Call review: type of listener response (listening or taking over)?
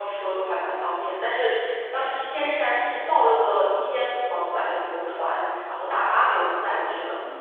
taking over